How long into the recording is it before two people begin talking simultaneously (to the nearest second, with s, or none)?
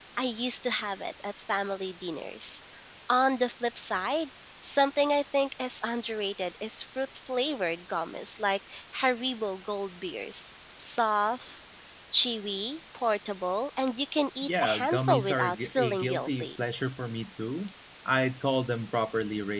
14 s